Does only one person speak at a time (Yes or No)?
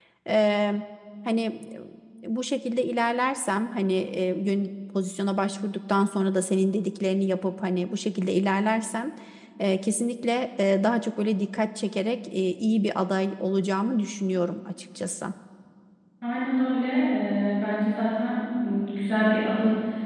Yes